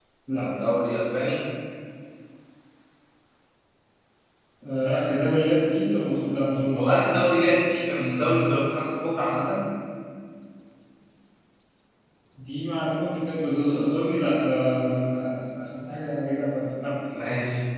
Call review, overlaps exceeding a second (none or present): none